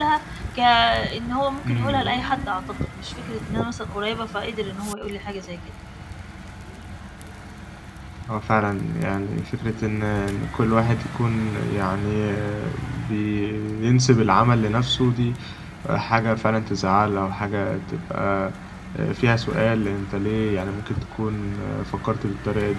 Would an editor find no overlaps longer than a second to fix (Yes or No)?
Yes